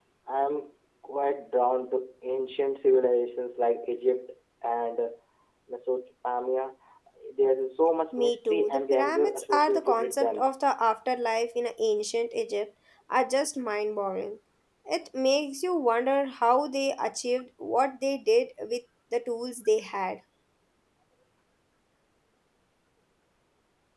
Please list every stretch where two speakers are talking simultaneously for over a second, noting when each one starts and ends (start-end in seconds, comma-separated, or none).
8.1-10.5